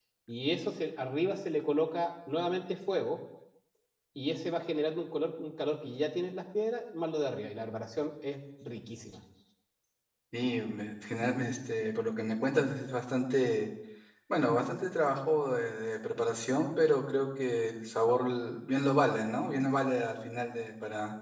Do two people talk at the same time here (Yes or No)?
No